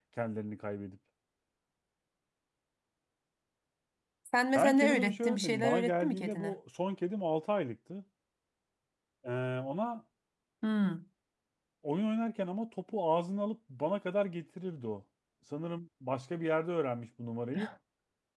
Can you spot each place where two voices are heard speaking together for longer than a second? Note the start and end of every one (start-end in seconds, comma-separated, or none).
4.5-6.5